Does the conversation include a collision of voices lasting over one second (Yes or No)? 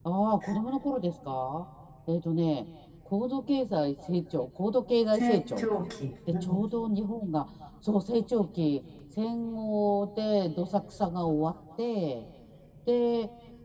No